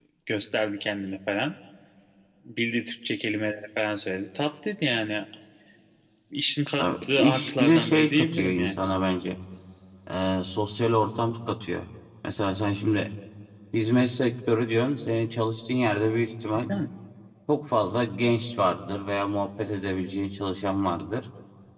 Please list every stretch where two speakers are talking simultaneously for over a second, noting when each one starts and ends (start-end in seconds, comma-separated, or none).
6.8-8.9